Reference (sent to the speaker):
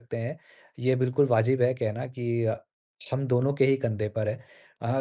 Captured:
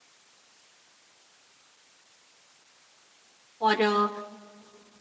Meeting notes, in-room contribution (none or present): present